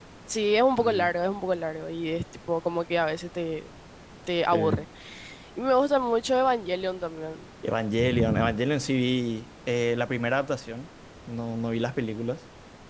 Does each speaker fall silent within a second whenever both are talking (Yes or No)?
Yes